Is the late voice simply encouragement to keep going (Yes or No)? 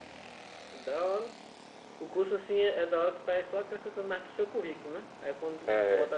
Yes